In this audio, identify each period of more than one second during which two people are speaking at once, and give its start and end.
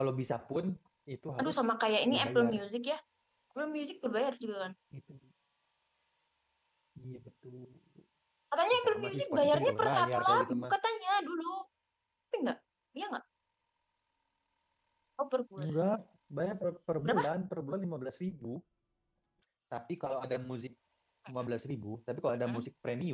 8.7-10.7

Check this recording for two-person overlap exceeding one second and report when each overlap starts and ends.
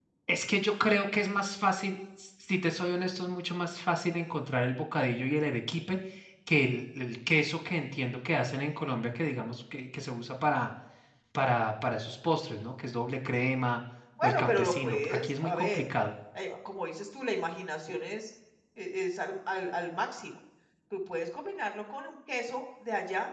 14.2-15.8

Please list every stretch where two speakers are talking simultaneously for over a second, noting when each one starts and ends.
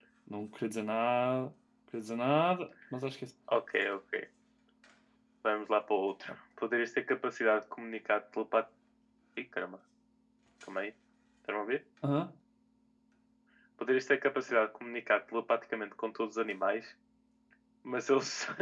none

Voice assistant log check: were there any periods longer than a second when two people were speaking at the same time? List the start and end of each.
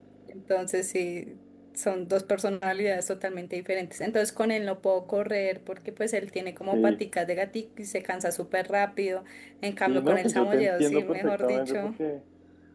9.9-11.9

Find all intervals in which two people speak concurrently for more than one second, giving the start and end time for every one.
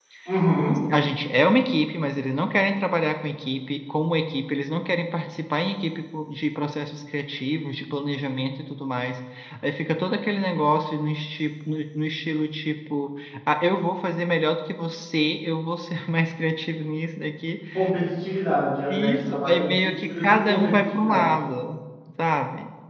18.9-21.4

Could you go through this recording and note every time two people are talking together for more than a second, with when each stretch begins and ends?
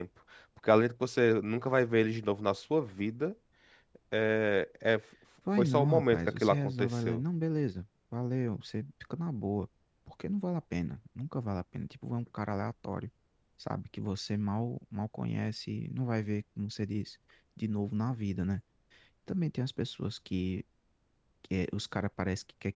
5.6-7.2

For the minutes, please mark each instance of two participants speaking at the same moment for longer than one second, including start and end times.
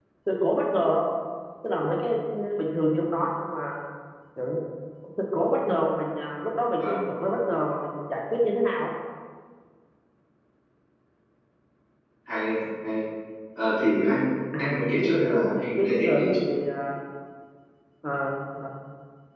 14.6-16.5

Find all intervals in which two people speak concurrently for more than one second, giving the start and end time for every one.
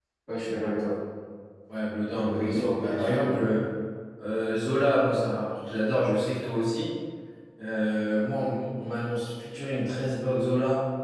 2.2-3.4

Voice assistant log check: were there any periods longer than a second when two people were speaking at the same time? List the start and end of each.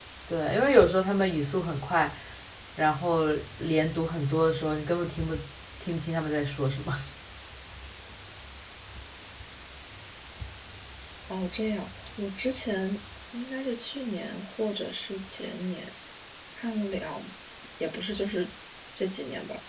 none

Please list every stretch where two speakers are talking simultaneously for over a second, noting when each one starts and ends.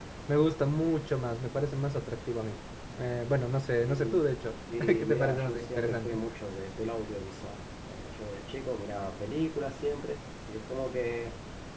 4.7-6.2

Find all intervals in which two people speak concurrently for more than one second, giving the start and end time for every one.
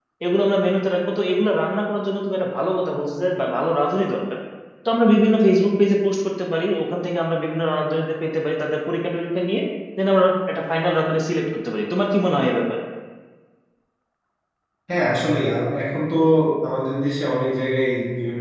none

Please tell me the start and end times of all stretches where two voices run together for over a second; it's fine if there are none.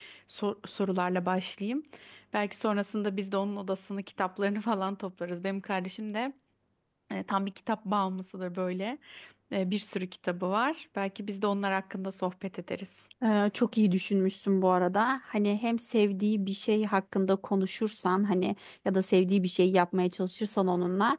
none

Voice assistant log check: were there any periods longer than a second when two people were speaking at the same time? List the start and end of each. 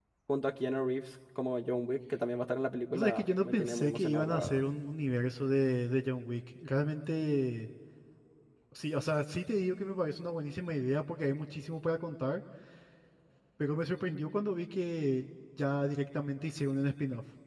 2.9-4.7

